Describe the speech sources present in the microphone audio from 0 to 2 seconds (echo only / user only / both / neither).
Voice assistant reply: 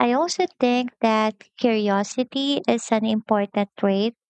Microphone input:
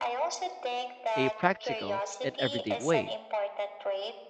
both